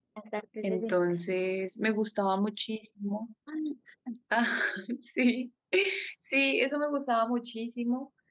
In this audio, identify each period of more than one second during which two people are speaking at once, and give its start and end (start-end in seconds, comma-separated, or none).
none